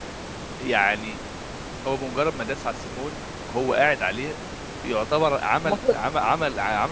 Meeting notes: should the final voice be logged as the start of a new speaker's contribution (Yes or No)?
No